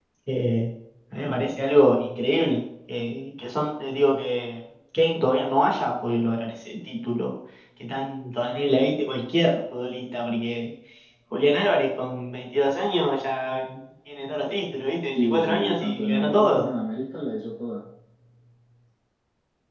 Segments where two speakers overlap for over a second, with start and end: 15.1-16.7

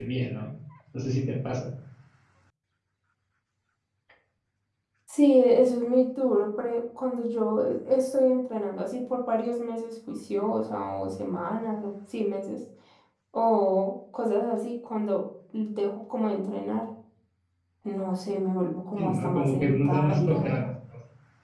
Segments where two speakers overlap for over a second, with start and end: 19.0-20.6

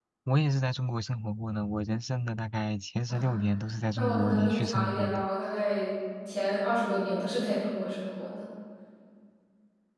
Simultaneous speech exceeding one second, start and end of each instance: 4.0-5.3

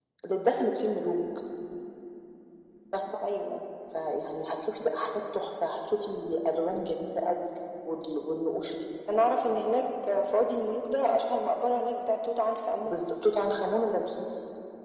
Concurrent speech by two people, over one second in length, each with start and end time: none

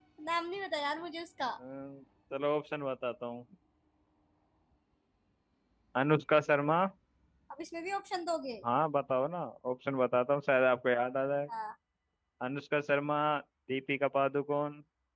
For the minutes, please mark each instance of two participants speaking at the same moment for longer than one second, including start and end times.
none

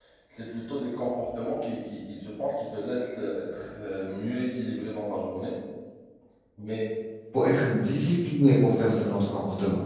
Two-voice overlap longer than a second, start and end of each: none

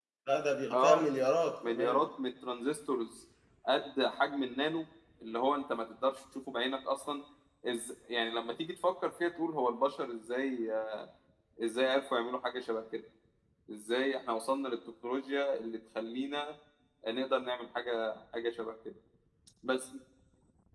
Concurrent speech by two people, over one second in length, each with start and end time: none

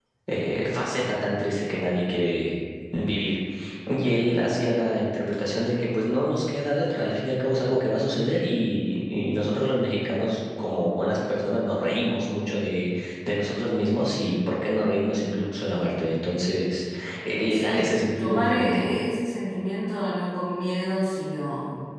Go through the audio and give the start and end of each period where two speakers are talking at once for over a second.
17.5-18.8

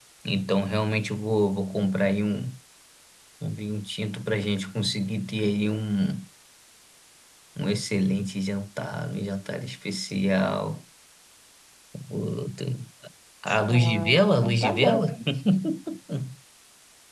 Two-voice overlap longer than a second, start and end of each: 13.7-15.1

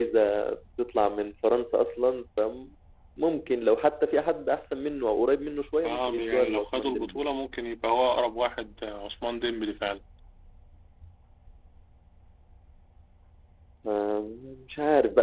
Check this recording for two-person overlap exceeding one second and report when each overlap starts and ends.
5.8-7.2

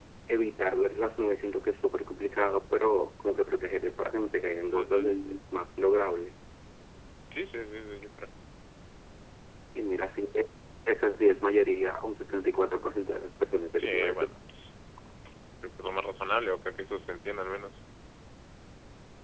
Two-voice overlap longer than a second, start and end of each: none

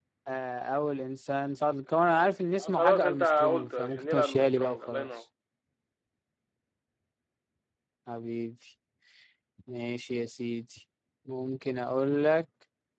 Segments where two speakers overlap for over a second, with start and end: 2.6-5.1

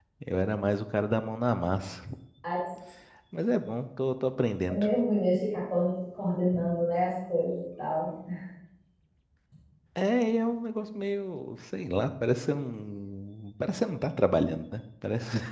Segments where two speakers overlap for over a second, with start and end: none

